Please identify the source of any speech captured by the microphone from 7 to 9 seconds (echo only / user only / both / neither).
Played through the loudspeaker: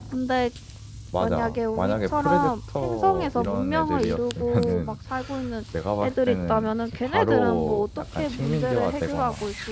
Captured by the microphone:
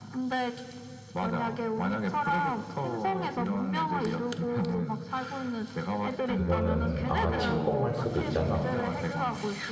both